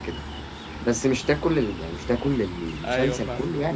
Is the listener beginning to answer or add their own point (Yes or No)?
No